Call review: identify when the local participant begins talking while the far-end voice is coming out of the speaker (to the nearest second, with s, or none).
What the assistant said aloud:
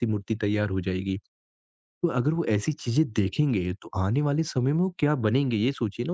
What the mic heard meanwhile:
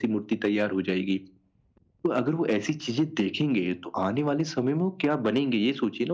none